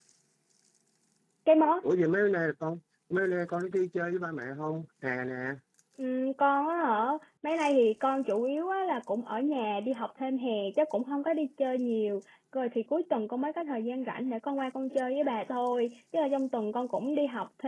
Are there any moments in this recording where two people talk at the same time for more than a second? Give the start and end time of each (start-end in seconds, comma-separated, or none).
none